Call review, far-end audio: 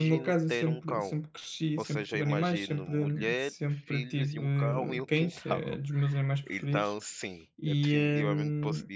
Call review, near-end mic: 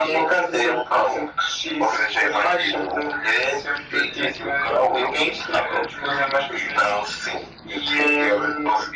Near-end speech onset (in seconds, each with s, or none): none